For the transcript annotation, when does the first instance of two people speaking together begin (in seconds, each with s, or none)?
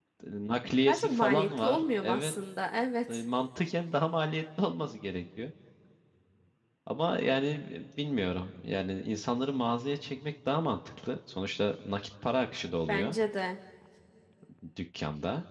0.9 s